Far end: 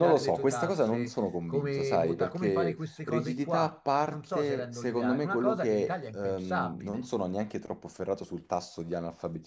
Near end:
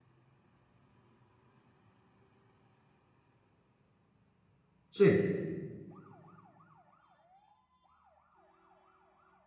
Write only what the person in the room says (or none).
Sì,